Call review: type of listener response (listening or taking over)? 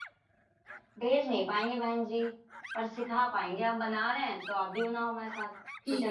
taking over